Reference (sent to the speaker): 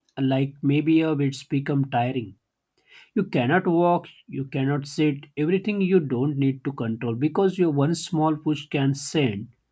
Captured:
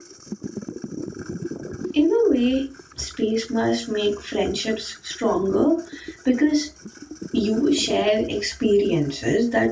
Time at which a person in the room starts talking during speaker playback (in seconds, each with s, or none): 1.9 s